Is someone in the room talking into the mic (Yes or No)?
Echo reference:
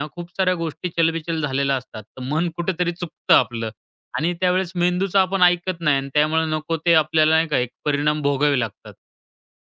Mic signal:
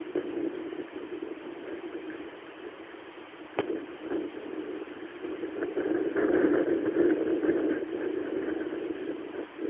No